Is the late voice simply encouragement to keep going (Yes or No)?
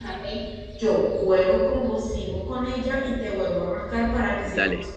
No